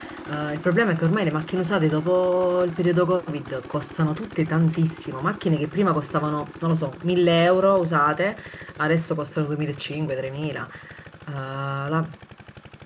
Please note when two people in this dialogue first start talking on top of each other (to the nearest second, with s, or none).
none